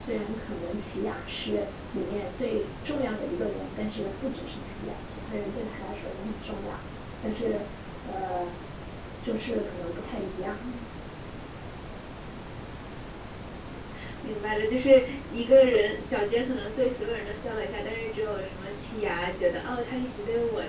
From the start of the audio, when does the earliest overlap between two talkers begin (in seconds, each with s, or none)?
none